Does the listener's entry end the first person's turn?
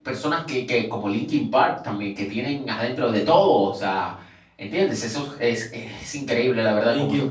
Yes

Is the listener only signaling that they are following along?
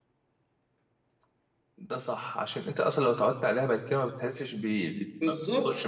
No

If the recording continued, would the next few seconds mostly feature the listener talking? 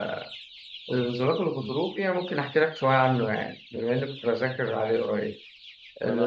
Yes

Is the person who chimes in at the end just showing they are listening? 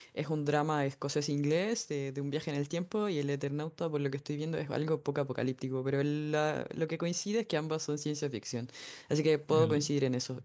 Yes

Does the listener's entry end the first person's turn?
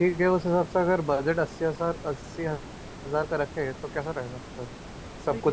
No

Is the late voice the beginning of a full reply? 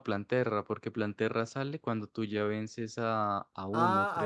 Yes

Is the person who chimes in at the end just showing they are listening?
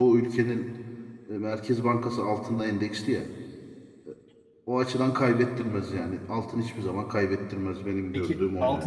No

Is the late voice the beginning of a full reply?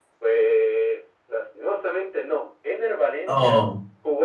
No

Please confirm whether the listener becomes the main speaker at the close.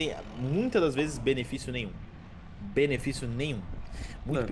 No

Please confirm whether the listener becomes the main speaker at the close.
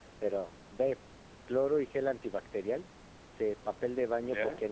No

